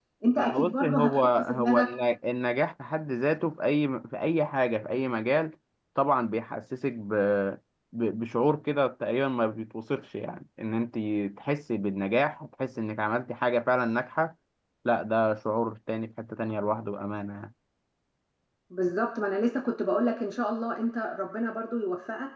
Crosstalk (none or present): present